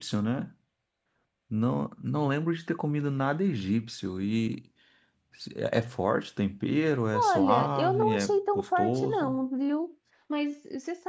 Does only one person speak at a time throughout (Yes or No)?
No